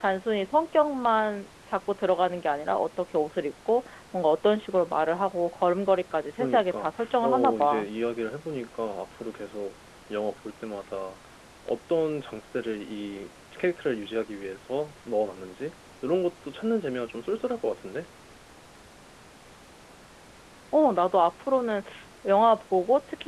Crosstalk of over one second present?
Yes, from 6.4 s

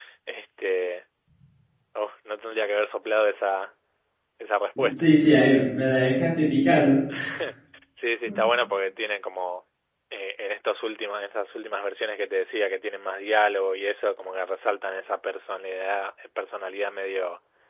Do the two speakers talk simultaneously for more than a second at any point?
No

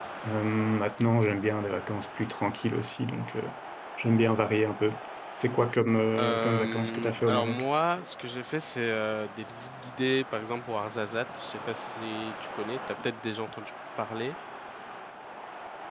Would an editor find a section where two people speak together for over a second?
Yes, from 6.1 s

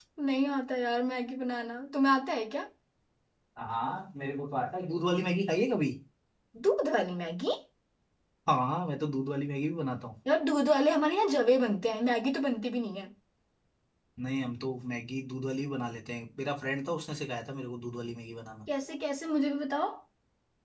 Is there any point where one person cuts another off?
No

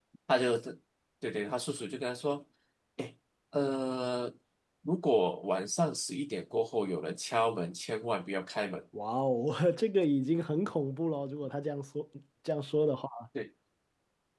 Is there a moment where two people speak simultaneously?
No

